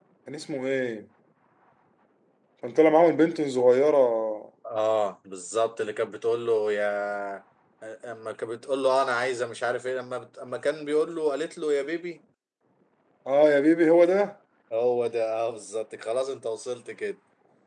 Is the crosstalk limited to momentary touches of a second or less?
Yes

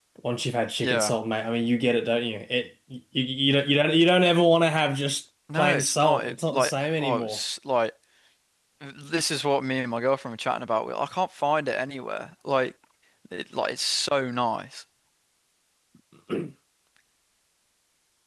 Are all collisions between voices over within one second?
No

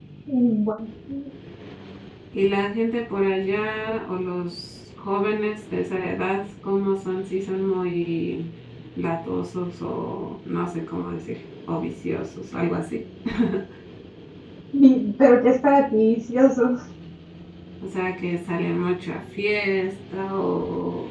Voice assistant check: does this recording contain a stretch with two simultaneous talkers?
No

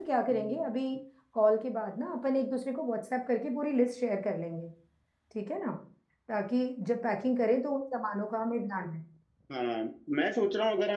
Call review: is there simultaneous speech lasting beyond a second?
No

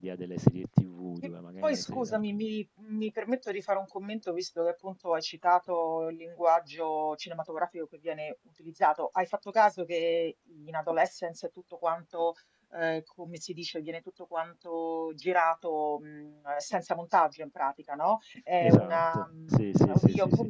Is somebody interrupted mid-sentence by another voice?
Yes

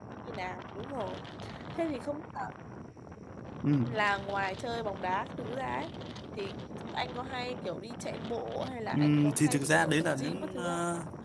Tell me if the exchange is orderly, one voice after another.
No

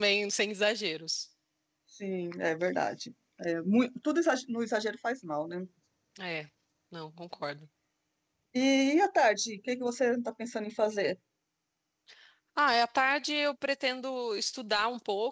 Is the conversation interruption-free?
Yes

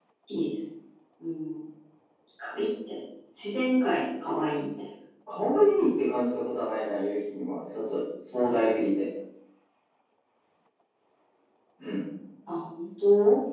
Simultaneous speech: No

